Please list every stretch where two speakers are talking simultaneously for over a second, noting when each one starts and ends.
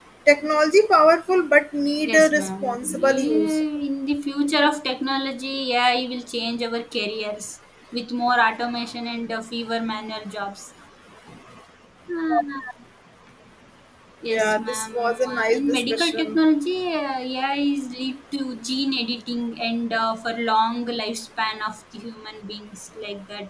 2.0-3.6, 14.3-16.4

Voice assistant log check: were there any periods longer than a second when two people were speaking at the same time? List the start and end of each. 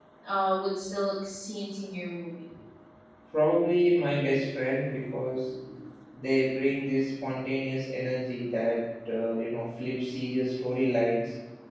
none

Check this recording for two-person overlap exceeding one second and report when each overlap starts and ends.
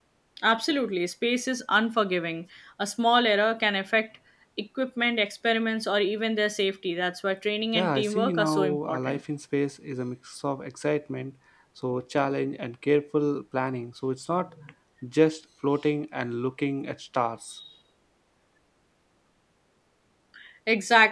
7.7-9.2

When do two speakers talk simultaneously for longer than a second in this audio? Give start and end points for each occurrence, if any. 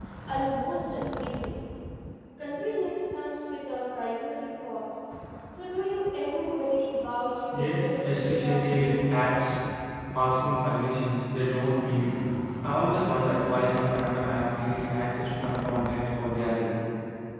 7.5-9.5

